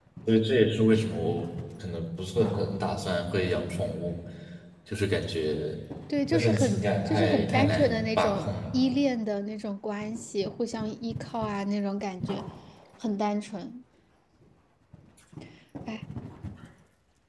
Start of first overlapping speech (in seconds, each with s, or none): 6.3 s